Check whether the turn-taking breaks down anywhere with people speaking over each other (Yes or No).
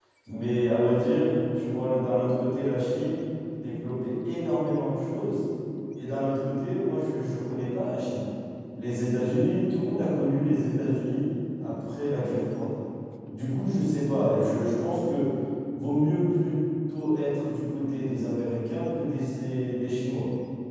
No